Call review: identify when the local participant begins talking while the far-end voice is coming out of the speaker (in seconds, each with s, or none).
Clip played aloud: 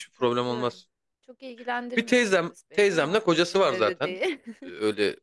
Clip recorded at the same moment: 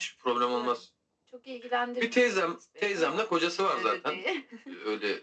none